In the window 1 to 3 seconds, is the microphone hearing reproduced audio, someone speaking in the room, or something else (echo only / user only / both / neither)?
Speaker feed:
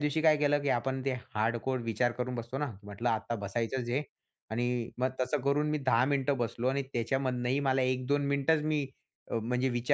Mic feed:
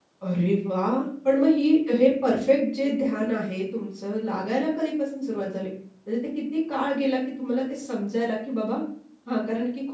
user only